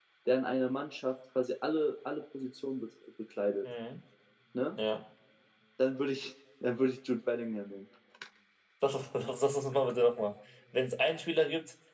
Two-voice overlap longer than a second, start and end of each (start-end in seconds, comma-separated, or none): none